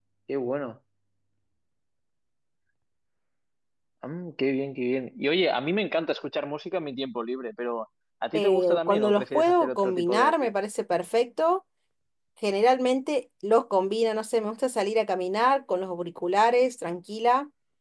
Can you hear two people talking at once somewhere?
Yes, from 8.3 s

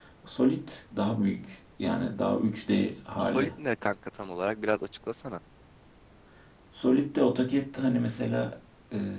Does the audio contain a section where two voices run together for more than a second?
No

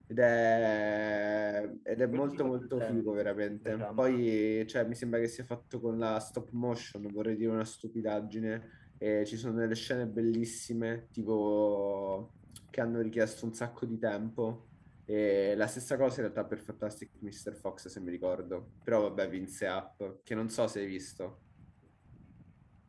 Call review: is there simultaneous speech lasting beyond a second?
Yes, from 2.1 s

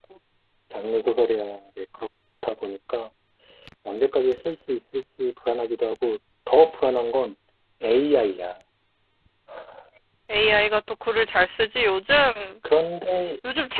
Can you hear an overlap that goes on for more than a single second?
No

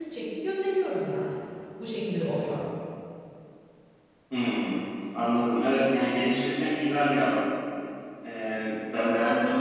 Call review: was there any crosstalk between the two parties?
No

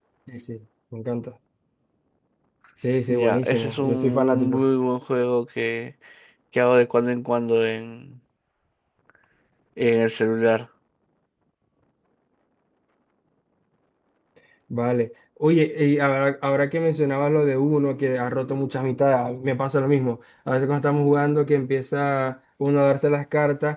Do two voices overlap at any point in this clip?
Yes, from 3.1 s

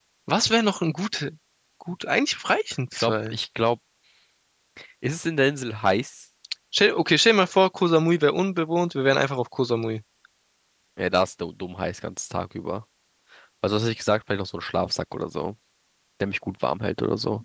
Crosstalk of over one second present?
No

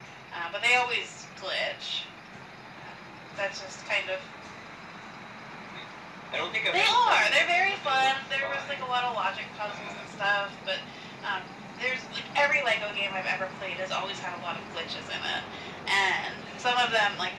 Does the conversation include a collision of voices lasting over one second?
Yes, from 6.7 s

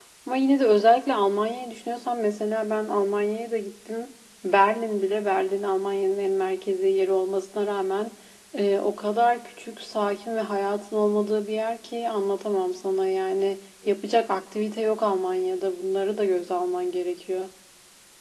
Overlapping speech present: No

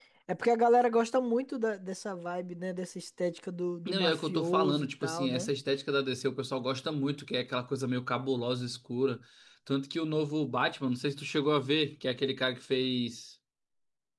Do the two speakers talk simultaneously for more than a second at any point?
Yes, from 3.9 s

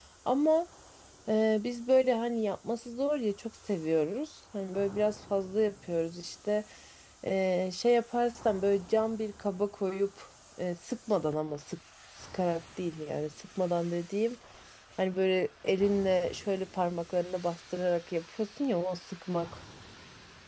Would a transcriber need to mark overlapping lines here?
No

